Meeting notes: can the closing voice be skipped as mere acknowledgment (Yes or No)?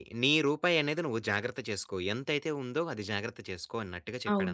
No